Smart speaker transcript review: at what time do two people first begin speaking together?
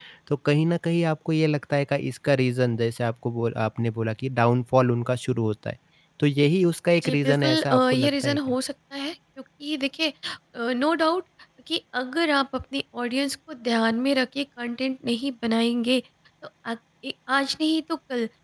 7.0 s

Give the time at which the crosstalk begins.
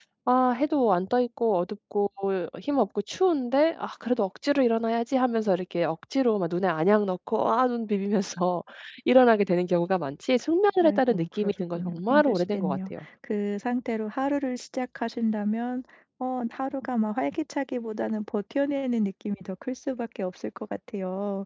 10.8 s

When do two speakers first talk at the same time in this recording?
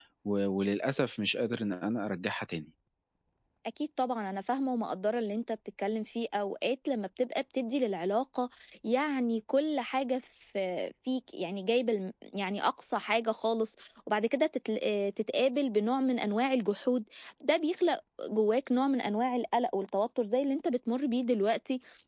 none

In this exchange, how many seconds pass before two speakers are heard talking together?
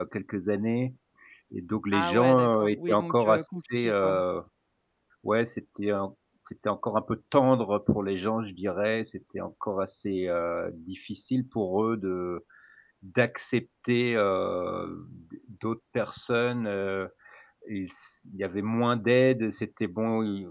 1.9 s

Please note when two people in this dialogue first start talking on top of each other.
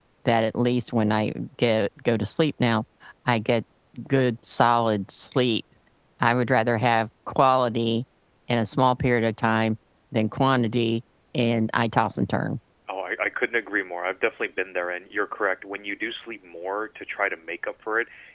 none

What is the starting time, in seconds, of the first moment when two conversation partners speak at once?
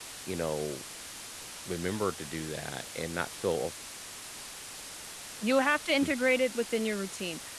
none

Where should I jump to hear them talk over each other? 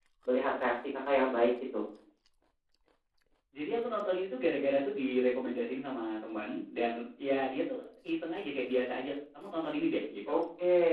none

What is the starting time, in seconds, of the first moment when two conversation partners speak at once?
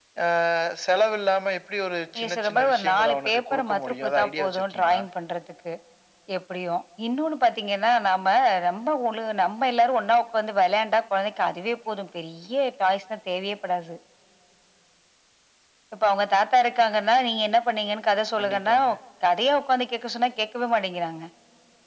2.1 s

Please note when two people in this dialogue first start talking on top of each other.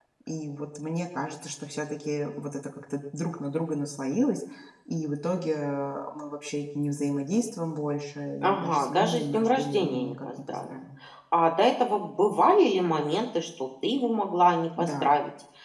8.4 s

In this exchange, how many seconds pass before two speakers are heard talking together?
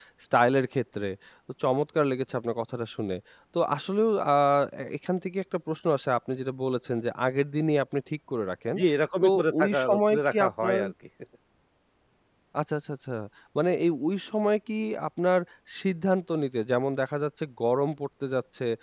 9.2 s

